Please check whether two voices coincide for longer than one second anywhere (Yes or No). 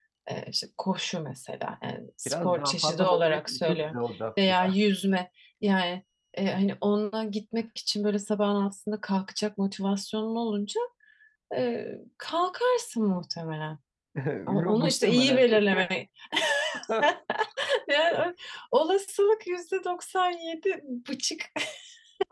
Yes